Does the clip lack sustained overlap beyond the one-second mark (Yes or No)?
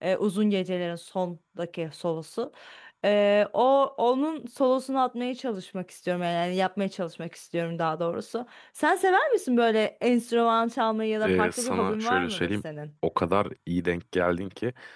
No